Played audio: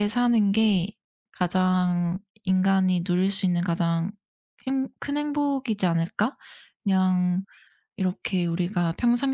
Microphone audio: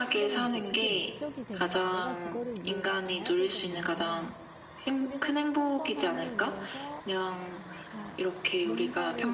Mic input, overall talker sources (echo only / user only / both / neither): both